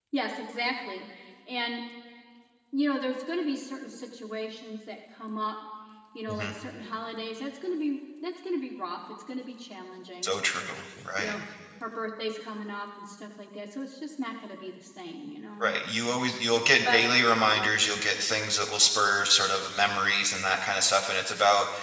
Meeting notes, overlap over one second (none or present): none